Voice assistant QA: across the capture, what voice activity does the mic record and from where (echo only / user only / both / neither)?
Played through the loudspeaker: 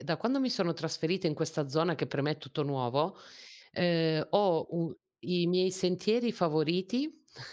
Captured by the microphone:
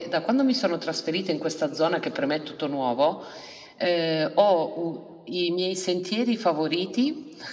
echo only